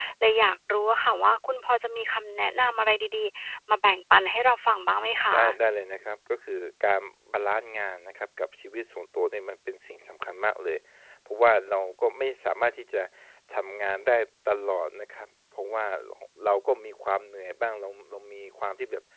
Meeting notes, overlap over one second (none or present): none